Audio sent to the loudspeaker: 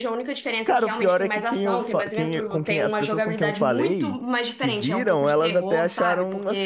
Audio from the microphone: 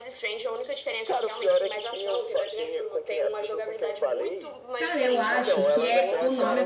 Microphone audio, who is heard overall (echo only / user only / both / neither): both